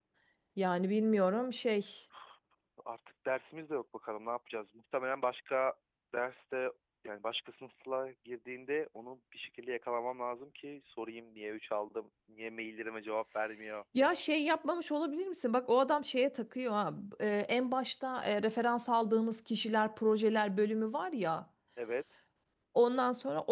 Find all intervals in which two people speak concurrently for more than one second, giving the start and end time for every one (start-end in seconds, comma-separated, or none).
none